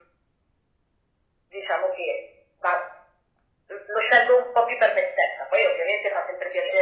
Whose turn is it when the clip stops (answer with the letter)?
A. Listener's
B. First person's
B